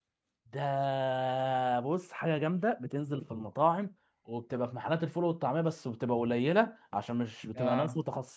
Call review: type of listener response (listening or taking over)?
listening